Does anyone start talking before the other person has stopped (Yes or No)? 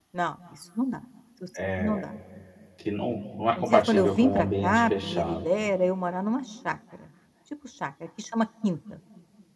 Yes